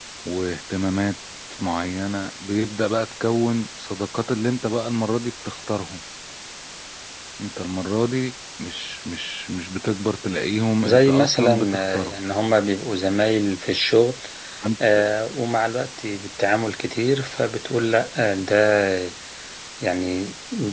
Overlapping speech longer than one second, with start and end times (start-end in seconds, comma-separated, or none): 10.8-12.2